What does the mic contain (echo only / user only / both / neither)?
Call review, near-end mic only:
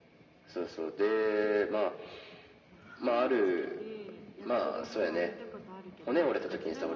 both